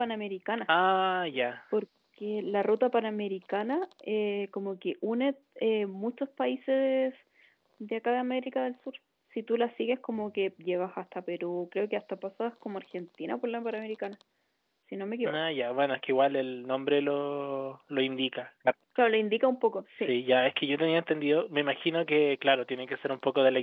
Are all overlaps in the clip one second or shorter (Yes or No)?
Yes